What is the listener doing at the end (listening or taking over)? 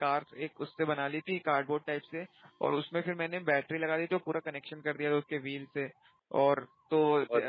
listening